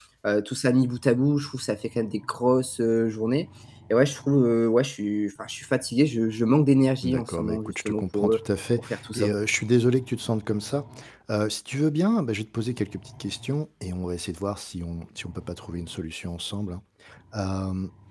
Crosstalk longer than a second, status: present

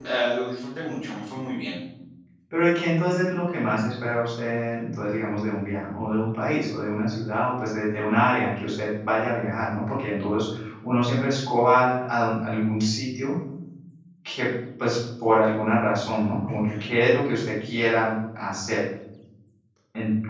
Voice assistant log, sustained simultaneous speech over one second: none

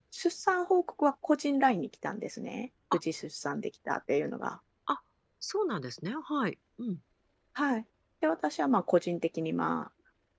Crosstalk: none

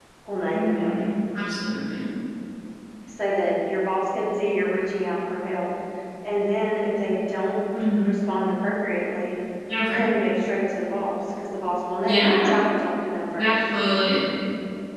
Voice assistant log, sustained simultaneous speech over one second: none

